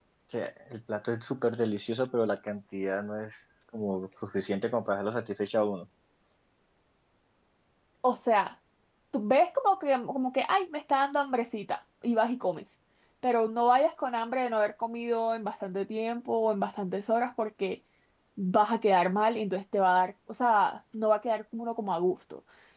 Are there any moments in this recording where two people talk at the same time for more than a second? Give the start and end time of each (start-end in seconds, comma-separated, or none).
none